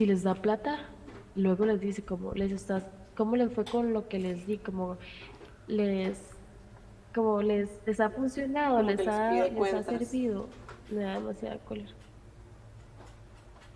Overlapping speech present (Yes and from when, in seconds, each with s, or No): Yes, from 8.8 s